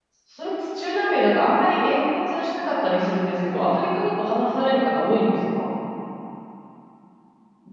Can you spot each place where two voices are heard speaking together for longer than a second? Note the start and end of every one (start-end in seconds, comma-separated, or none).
none